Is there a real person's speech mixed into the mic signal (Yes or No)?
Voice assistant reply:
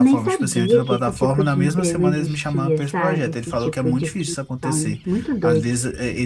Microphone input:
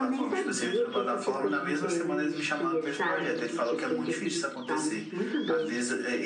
No